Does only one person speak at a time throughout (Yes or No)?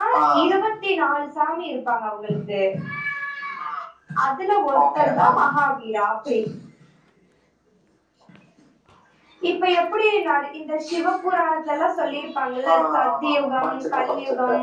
No